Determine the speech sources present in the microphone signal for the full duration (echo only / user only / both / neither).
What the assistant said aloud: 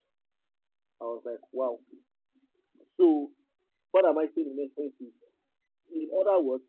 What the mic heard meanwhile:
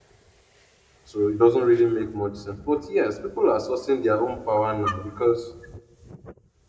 user only